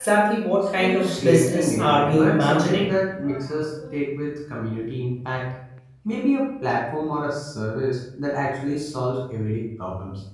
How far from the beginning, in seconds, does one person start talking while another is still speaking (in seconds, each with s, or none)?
0.8 s